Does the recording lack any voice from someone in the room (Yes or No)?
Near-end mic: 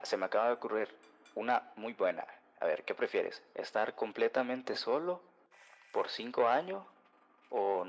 Yes